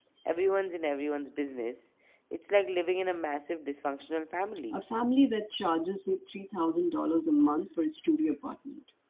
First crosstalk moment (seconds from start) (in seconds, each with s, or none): none